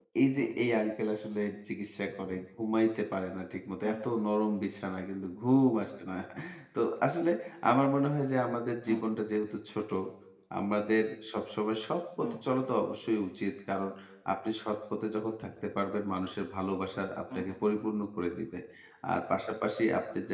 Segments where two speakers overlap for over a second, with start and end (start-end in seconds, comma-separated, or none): none